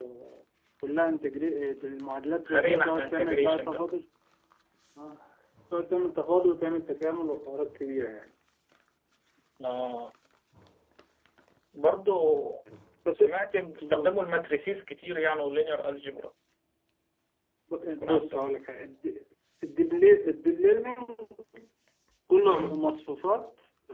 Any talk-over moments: Yes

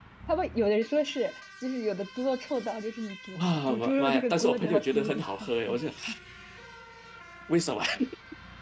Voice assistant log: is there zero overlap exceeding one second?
No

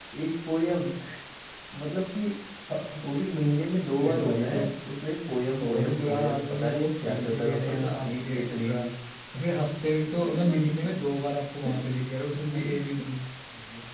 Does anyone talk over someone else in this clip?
Yes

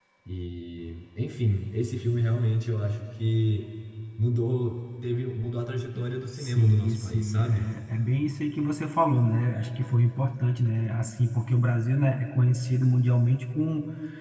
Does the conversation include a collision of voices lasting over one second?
Yes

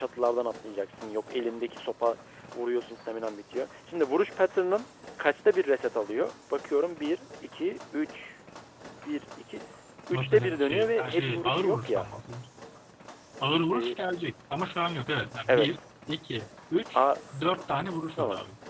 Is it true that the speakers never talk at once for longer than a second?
No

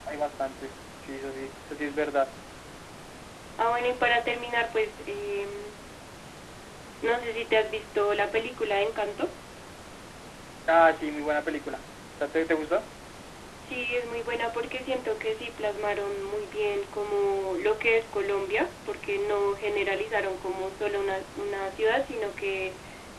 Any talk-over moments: No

